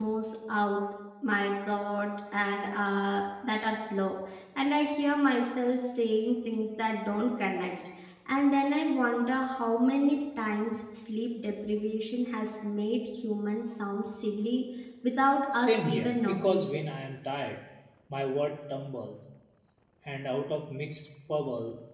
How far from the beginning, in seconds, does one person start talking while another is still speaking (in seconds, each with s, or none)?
15.5 s